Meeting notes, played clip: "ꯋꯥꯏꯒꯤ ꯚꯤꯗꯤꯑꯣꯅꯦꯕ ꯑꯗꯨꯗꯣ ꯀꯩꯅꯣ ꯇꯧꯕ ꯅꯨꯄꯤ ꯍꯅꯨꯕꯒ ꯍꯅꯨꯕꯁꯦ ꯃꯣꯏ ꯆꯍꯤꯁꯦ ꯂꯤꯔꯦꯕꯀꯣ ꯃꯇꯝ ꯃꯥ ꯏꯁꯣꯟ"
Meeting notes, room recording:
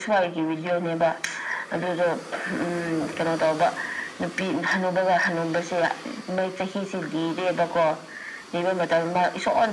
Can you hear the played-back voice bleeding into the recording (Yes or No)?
Yes